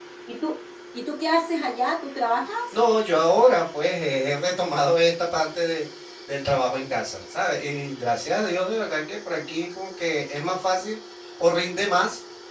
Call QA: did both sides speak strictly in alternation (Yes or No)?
Yes